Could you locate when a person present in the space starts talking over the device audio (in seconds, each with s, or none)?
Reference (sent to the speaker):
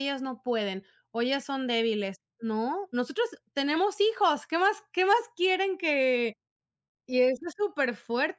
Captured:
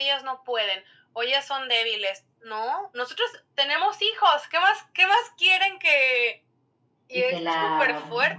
7.1 s